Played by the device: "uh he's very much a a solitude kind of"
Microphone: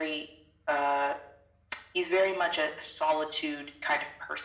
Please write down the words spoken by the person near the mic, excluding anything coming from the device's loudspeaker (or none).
none